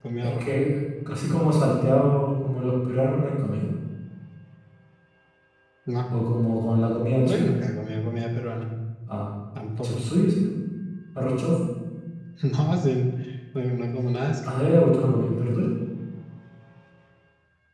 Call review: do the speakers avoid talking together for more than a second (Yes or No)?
Yes